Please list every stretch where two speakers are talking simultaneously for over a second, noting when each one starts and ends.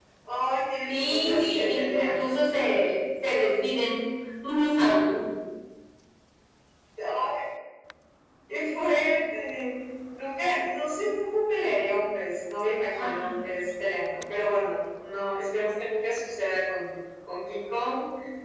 0.9-2.3

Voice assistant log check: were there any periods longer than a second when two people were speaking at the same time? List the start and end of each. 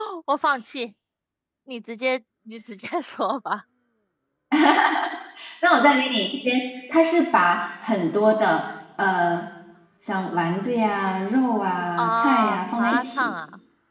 12.0-13.3

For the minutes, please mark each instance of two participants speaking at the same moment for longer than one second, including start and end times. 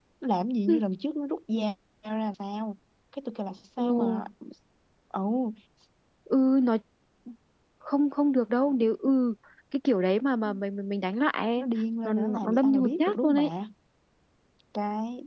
12.0-13.5

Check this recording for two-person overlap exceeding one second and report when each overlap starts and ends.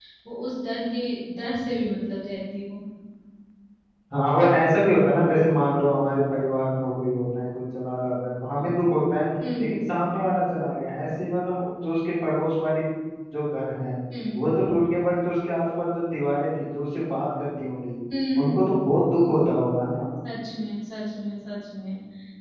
none

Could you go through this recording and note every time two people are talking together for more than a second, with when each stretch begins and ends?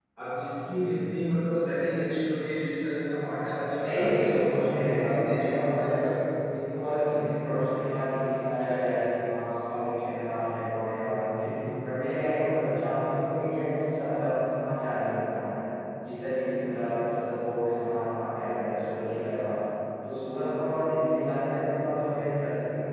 3.8-6.1

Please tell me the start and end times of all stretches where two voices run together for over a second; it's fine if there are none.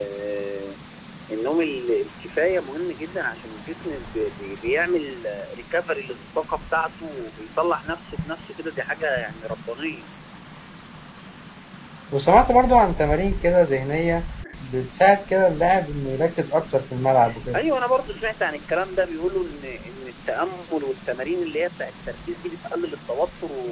none

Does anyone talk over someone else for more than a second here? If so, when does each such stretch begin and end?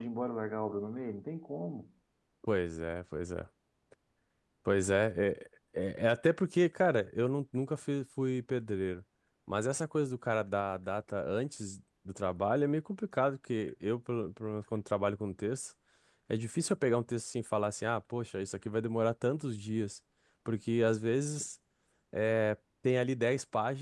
none

